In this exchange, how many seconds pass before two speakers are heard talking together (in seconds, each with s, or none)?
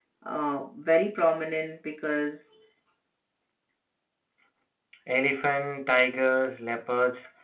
none